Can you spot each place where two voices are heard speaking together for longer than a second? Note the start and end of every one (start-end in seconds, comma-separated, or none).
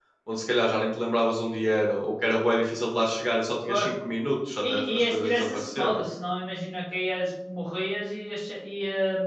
4.6-6.0